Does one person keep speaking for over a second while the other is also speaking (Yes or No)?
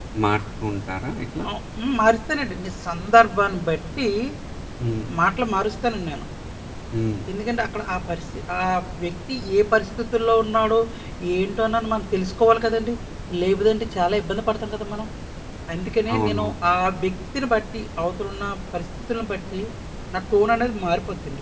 No